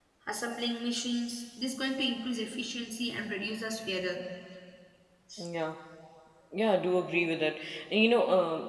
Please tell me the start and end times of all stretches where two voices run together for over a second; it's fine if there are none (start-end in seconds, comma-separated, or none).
none